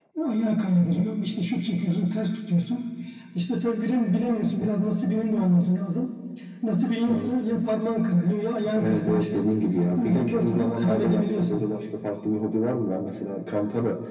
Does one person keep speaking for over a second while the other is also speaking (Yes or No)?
Yes